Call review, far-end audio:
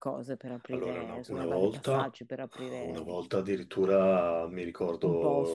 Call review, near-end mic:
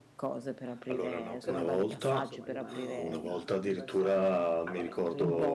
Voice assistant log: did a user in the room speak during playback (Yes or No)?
Yes